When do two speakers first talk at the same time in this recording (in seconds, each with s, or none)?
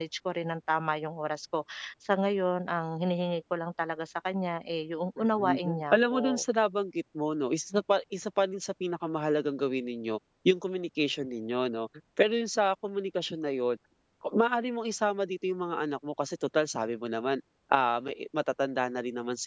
5.2 s